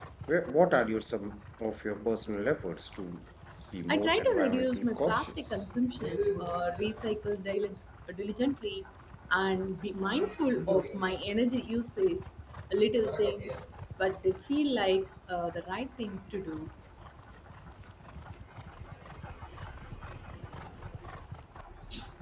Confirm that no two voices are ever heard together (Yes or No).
No